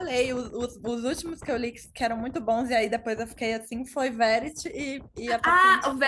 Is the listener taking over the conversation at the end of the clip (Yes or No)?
Yes